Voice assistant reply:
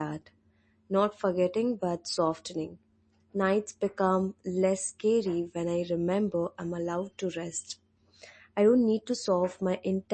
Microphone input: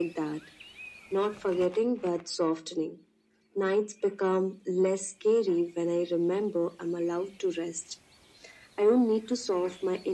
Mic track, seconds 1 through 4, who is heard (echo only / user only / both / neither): echo only